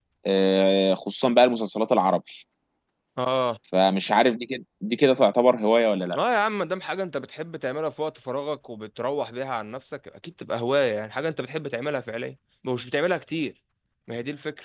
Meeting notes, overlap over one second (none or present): none